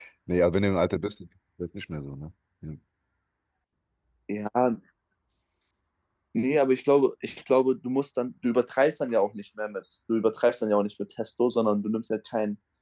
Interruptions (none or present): none